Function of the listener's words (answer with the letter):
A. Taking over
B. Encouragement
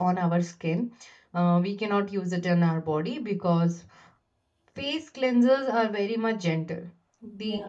B